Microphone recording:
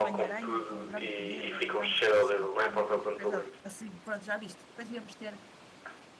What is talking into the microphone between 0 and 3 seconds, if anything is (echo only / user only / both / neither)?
both